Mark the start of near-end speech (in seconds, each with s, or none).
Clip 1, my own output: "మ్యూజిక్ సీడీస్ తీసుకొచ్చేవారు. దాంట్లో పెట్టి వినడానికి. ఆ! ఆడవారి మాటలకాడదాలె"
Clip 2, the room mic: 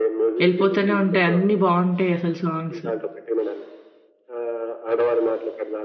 0.5 s